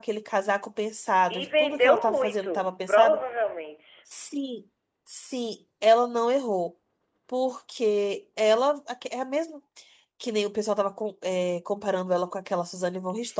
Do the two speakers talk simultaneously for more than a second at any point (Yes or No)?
Yes